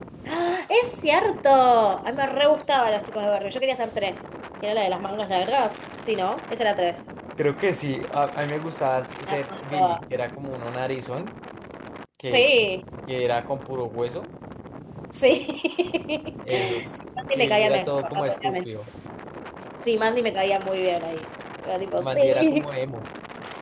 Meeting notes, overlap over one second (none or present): present